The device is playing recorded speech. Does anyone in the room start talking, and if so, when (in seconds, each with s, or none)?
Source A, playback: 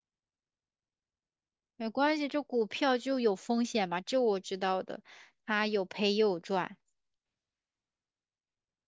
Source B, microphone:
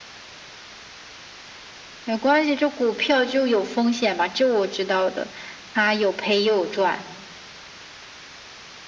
none